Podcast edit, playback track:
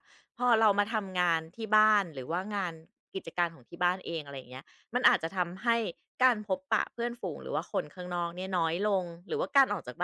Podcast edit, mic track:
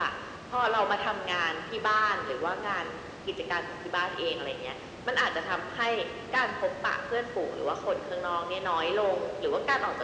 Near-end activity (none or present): none